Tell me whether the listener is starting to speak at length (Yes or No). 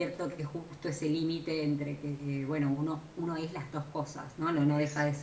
No